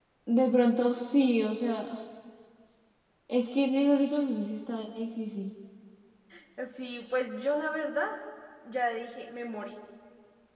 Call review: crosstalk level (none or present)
none